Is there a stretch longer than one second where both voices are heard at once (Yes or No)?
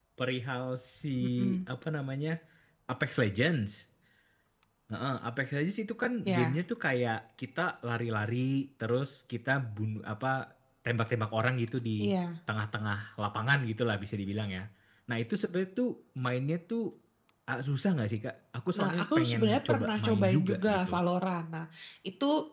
Yes